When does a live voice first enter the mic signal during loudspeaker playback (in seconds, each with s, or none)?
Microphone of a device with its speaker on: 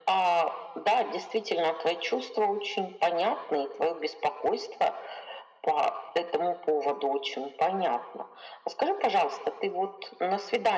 none